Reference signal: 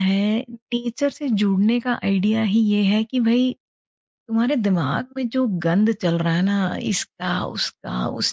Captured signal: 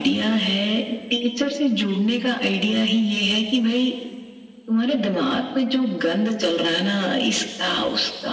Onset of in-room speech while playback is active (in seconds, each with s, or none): none